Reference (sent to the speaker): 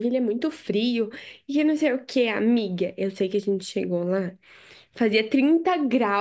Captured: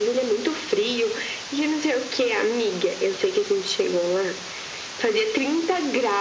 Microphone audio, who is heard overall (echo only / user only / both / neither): echo only